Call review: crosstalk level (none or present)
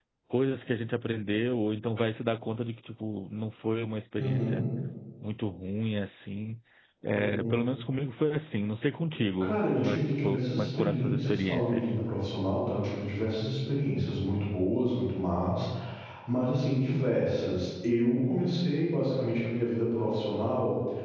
present